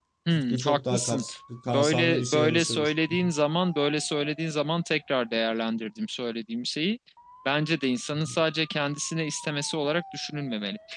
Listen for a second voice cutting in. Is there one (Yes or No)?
Yes